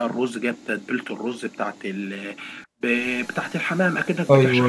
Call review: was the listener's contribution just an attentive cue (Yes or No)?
Yes